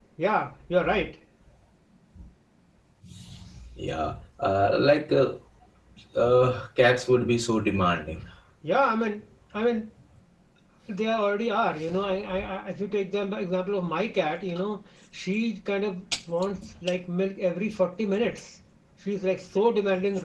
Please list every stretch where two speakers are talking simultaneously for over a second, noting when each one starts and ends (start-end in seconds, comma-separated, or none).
none